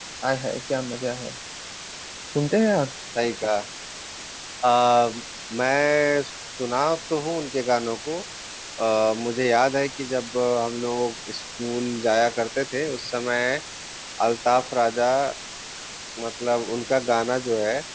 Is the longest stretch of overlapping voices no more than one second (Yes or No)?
Yes